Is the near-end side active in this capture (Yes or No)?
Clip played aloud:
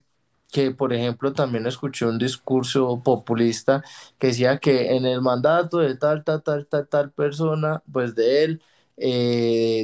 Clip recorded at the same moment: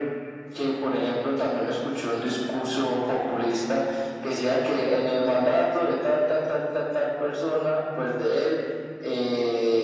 No